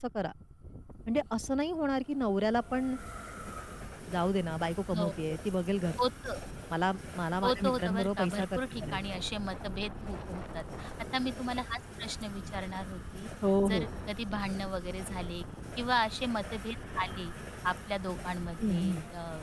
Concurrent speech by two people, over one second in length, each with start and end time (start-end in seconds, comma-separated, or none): 7.4-9.0